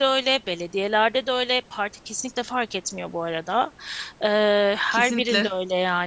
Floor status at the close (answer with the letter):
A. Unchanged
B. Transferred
A